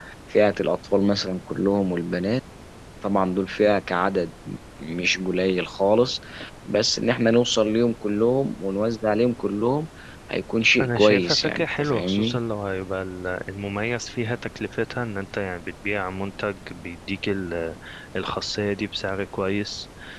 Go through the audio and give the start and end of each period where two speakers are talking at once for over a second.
10.8-12.4

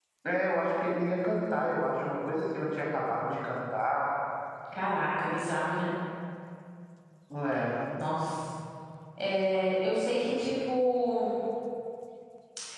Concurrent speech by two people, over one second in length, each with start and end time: none

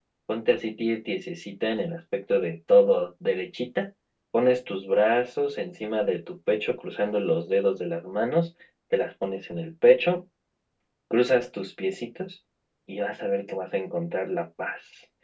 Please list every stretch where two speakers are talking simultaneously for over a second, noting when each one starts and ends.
none

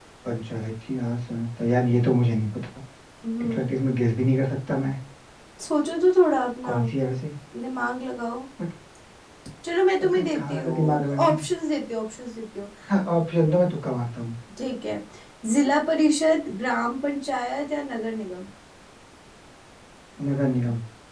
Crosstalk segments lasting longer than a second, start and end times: 10.0-11.3

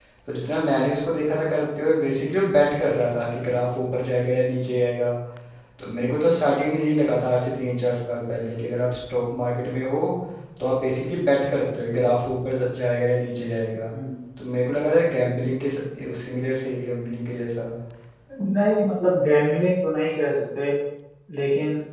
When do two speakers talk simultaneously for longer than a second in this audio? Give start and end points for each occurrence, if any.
none

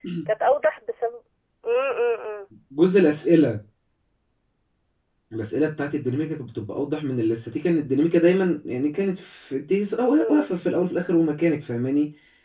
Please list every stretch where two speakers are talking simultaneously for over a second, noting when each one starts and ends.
none

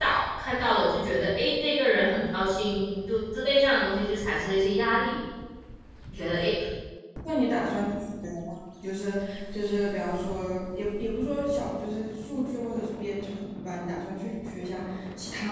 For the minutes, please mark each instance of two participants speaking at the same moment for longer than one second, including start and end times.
none

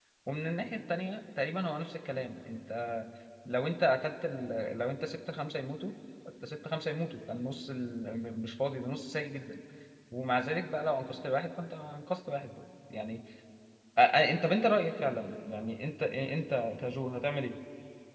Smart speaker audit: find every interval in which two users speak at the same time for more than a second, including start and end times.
none

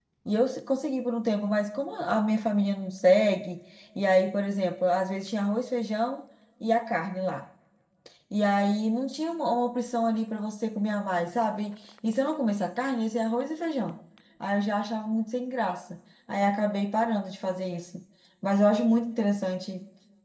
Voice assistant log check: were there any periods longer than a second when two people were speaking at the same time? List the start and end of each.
none

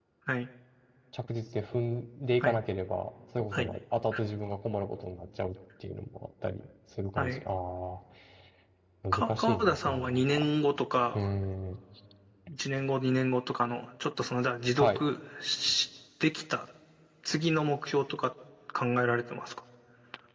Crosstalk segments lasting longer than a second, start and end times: 9.1-10.4

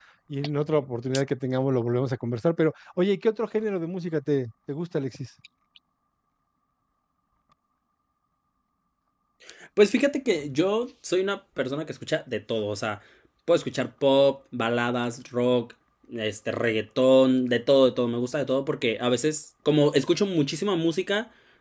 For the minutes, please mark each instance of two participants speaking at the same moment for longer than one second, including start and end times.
none

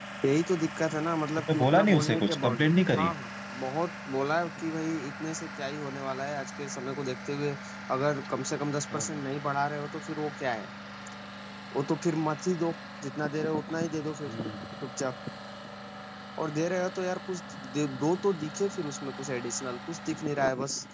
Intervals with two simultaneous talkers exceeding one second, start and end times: 1.4-3.1

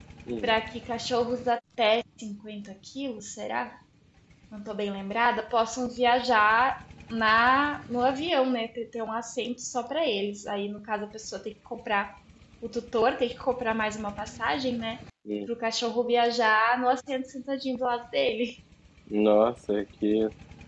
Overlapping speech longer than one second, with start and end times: none

